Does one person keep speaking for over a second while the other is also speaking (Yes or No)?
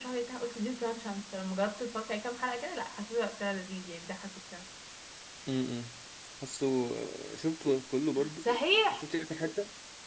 No